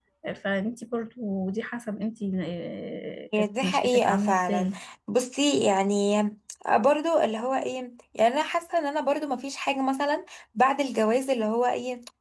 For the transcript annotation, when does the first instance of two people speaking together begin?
3.3 s

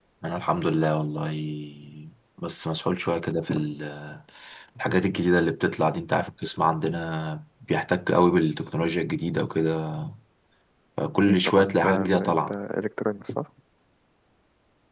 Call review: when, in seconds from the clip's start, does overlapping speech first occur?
11.2 s

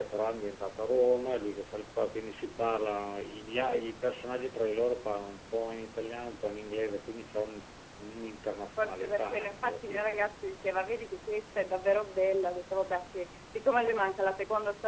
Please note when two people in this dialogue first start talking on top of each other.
8.7 s

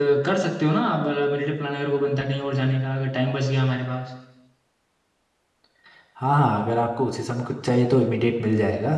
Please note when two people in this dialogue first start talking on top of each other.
none

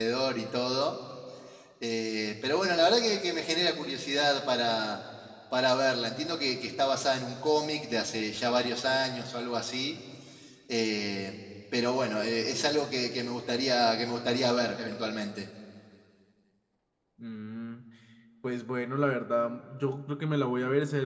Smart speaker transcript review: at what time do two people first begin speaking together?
none

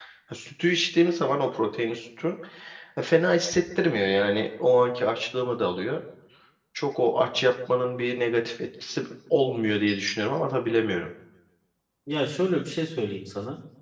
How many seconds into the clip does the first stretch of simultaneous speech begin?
none

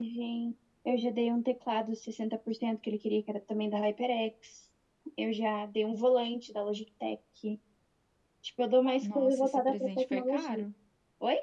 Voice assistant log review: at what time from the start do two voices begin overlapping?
9.0 s

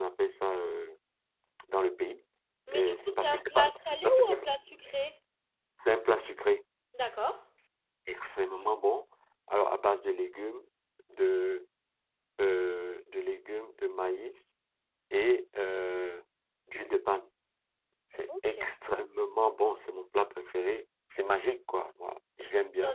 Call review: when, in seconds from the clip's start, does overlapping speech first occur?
2.7 s

